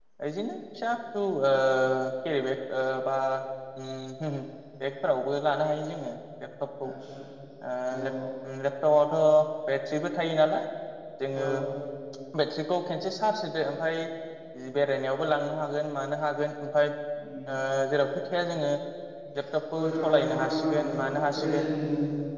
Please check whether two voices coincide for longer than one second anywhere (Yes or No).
Yes